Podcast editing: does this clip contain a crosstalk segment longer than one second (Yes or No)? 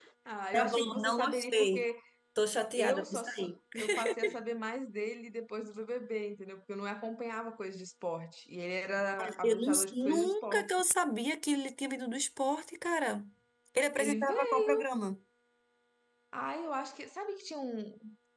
Yes